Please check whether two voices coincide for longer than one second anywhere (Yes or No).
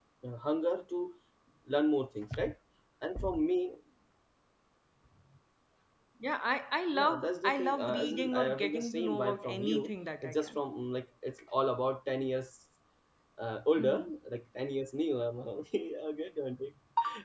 Yes